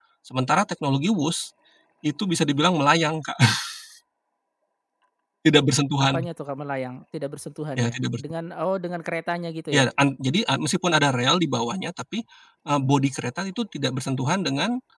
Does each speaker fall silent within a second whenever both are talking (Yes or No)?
Yes